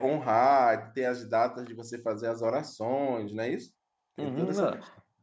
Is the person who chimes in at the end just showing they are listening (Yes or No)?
No